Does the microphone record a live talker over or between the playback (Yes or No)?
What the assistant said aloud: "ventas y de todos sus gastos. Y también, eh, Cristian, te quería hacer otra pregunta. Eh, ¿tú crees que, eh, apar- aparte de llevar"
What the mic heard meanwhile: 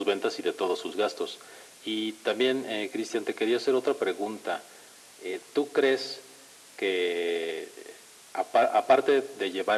No